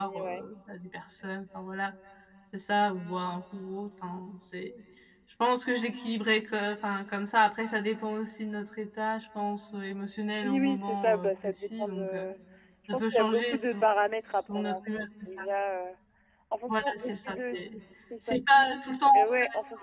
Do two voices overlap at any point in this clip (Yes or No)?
Yes